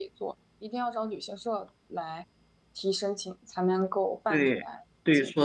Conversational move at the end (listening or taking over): taking over